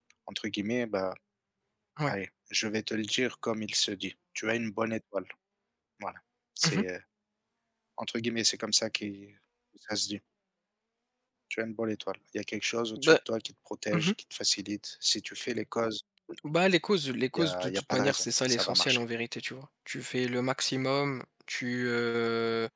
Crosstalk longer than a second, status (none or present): present